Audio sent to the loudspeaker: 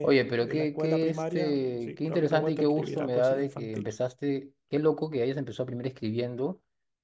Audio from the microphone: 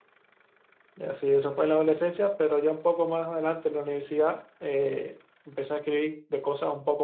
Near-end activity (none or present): present